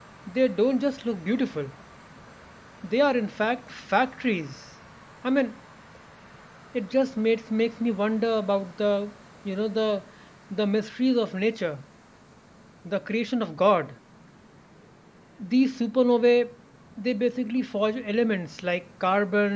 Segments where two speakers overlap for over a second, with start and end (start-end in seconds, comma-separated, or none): none